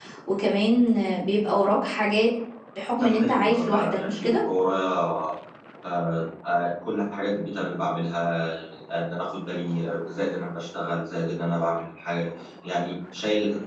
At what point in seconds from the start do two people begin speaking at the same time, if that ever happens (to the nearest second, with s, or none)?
3 s